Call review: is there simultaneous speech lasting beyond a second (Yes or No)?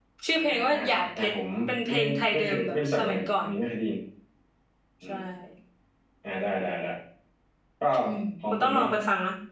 Yes